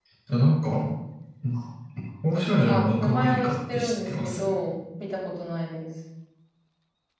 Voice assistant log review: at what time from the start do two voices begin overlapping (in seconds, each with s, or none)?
2.4 s